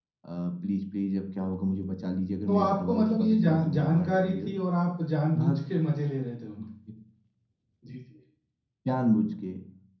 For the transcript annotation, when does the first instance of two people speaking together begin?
2.5 s

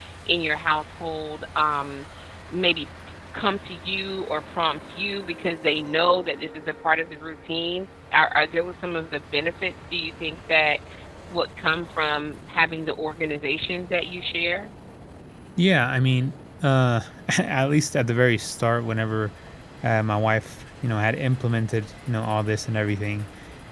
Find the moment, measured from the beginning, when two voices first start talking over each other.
none

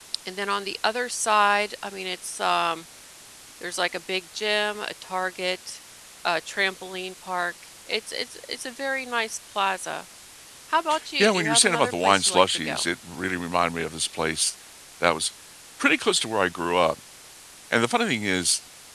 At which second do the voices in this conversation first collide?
11.2 s

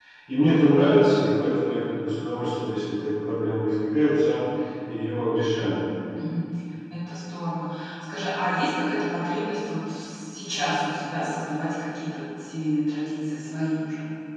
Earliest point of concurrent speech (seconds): none

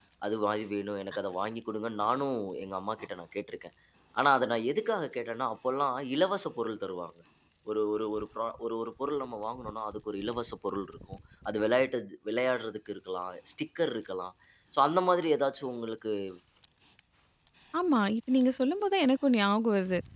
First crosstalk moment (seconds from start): none

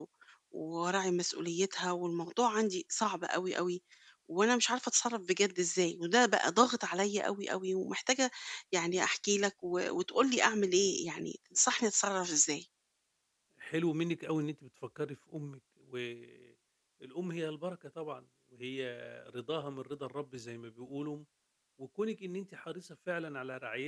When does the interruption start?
none

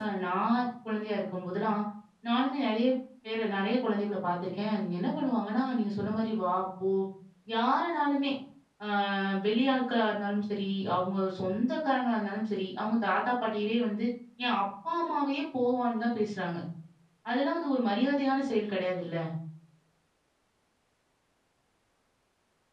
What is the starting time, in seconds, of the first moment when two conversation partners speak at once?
none

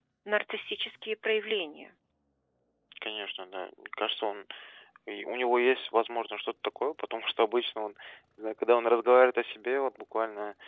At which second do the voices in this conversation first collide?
none

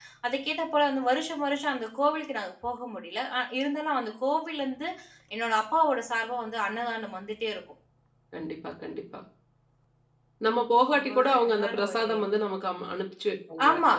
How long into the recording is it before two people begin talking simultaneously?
10.9 s

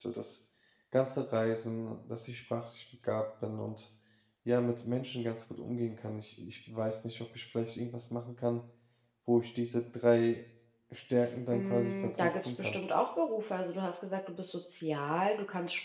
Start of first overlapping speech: 11.5 s

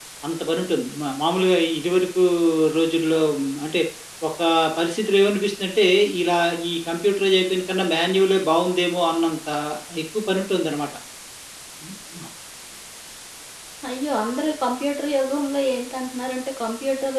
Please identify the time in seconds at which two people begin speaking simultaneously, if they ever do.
none

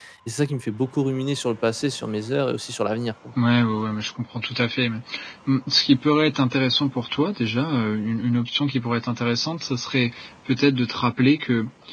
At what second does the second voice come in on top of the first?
none

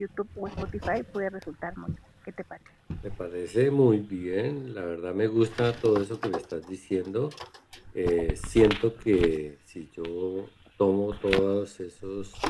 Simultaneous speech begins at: none

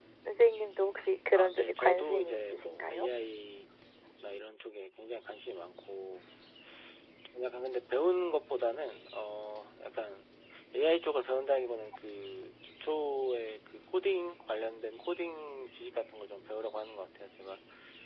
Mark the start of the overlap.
1.3 s

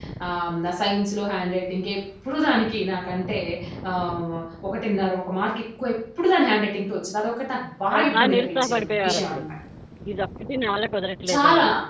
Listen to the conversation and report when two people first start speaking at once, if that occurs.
7.9 s

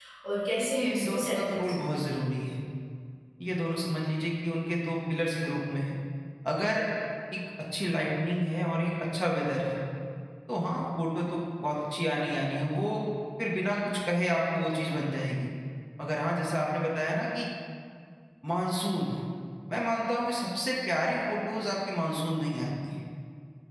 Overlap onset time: 0.6 s

